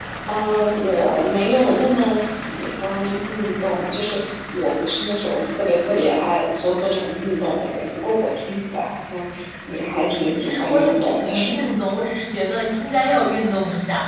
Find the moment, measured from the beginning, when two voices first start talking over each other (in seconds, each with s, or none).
10.3 s